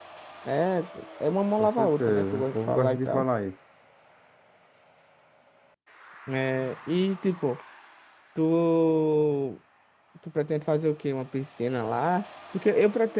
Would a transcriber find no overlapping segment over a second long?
No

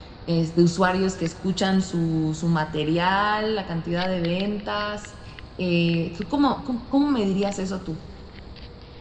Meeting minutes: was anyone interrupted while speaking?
No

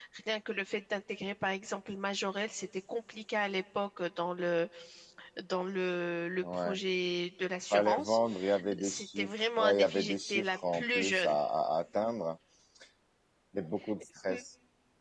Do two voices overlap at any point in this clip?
Yes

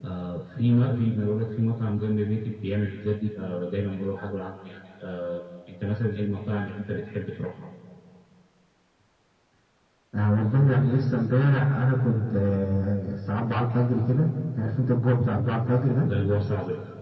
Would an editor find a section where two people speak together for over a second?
No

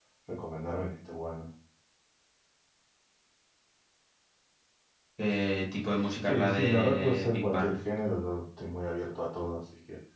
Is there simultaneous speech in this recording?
Yes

